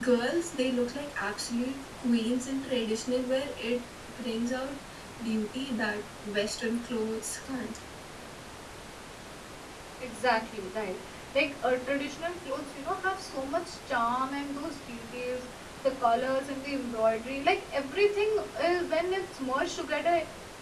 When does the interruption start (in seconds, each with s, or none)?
none